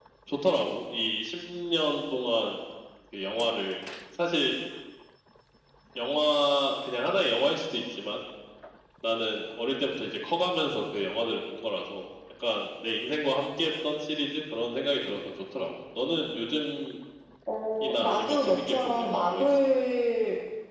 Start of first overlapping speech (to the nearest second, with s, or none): 18 s